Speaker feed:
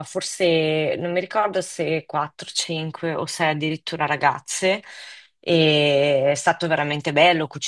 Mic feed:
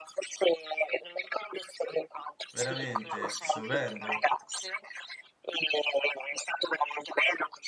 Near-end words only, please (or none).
veramente stupendo,